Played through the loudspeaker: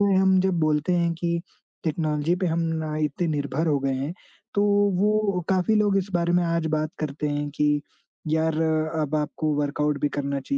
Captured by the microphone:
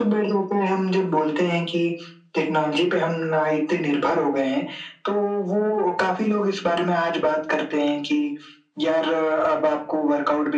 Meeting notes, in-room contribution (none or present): none